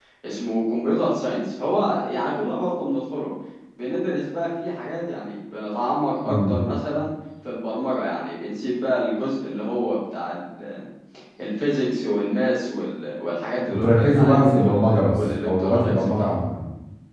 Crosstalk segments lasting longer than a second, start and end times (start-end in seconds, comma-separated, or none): 13.7-16.4